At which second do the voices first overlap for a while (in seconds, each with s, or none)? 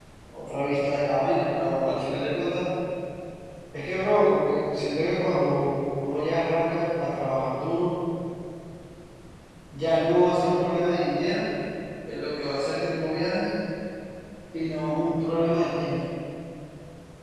none